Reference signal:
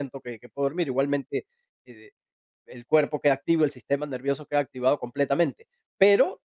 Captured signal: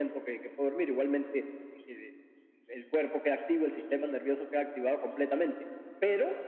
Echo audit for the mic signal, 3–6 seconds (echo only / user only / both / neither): echo only